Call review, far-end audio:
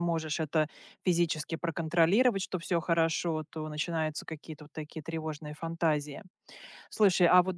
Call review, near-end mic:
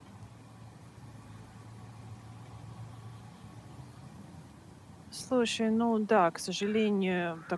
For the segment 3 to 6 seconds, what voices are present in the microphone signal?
user only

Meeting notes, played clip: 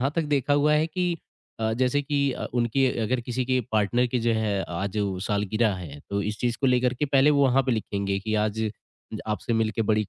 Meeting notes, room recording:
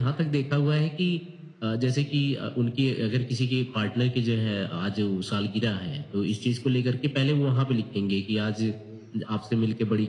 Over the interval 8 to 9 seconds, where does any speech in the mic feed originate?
echo only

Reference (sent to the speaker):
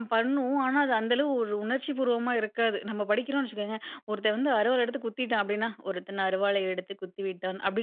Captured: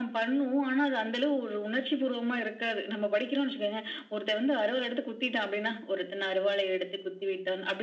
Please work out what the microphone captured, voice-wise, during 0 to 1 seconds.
echo only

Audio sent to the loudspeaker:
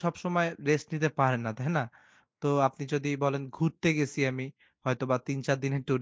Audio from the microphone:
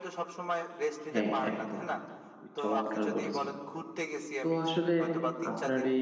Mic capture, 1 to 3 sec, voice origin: both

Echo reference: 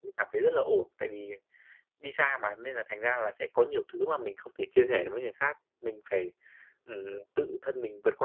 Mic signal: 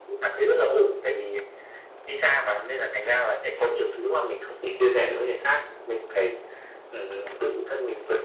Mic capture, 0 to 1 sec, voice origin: echo only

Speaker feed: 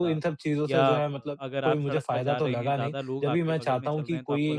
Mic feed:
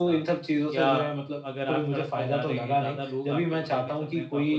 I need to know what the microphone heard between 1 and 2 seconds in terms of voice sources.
echo only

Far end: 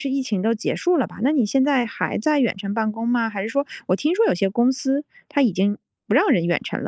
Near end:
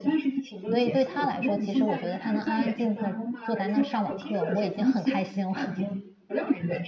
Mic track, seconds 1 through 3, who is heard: both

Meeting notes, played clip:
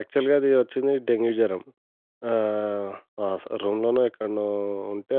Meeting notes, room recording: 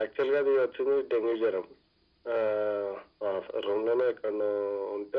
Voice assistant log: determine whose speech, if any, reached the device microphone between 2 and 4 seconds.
echo only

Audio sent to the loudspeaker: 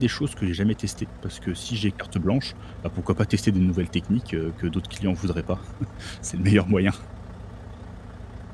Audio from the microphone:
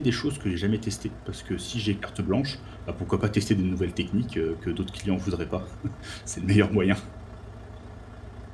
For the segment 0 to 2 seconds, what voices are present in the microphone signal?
echo only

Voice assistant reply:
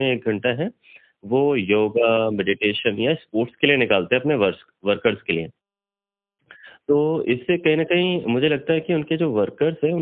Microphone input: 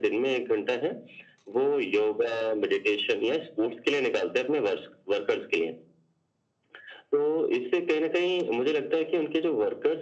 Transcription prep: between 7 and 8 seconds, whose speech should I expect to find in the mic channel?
echo only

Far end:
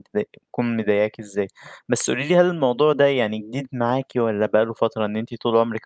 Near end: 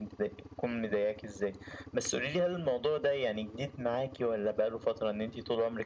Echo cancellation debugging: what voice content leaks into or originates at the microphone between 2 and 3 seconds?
echo only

